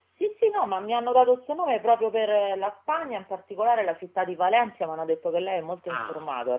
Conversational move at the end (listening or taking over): taking over